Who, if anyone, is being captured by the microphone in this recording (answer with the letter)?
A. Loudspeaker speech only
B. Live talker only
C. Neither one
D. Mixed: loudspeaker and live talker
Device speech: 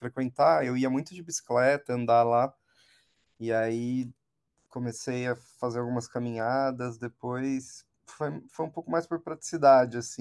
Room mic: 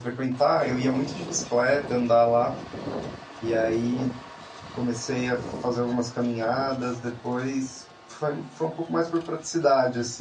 A